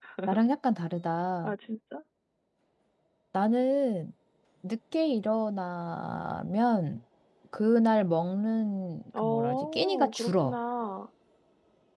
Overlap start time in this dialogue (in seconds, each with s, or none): 9.1 s